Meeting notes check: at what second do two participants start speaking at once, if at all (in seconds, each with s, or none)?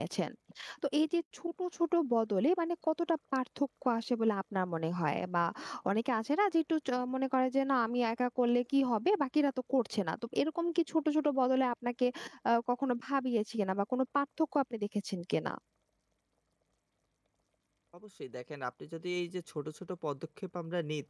none